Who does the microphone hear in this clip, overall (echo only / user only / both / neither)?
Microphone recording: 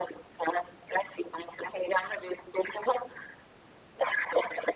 echo only